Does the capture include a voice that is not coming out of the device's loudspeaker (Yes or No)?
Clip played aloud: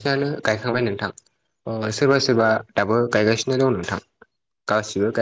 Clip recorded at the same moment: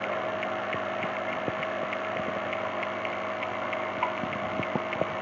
No